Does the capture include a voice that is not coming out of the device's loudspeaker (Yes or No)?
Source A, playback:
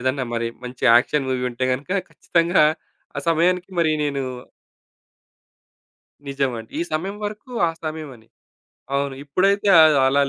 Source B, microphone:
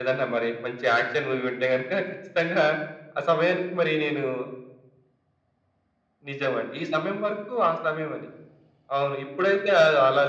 No